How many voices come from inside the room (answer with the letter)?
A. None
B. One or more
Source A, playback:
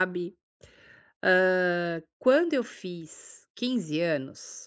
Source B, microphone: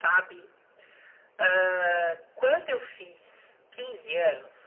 A